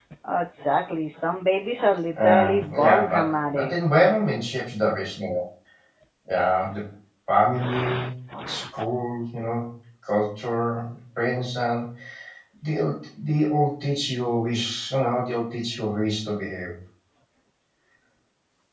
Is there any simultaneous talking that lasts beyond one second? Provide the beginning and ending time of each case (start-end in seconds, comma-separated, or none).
2.2-3.8